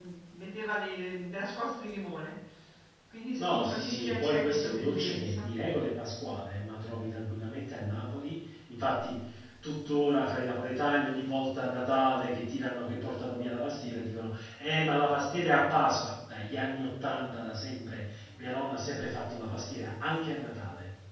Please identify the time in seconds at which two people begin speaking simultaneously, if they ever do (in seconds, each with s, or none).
3.4 s